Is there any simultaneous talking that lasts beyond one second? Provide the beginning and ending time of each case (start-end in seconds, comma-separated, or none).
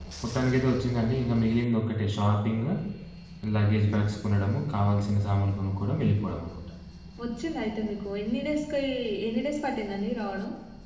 none